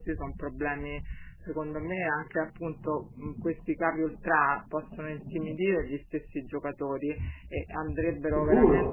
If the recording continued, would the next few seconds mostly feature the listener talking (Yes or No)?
No